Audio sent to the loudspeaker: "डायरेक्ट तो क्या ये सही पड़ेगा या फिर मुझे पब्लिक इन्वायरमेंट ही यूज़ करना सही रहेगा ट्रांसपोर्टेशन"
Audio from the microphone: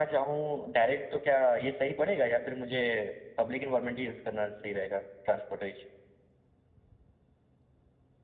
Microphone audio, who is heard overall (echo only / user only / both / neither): echo only